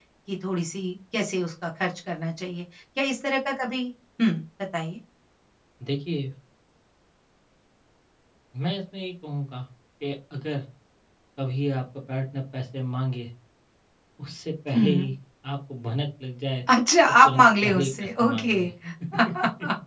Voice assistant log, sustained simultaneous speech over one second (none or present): present